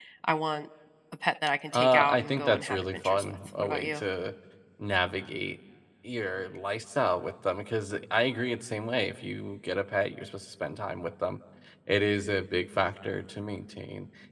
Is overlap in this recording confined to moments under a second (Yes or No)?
No